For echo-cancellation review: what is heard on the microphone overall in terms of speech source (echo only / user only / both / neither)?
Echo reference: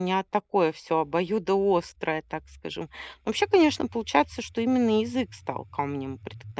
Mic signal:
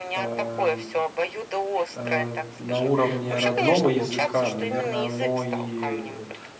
both